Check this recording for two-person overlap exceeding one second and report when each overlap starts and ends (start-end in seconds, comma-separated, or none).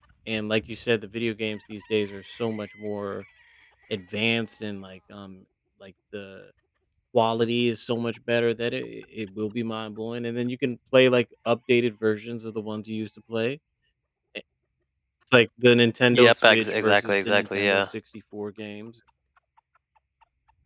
16.1-17.8